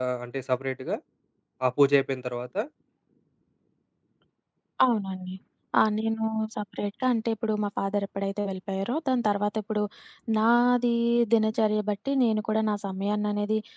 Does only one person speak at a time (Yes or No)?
Yes